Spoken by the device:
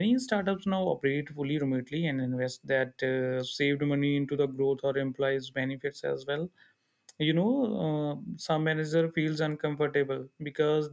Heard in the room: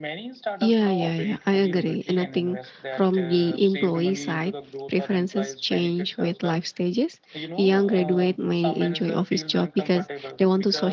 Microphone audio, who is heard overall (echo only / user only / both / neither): both